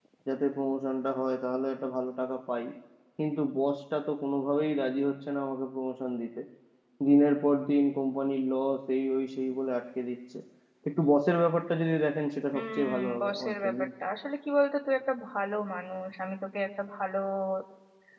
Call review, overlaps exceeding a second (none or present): present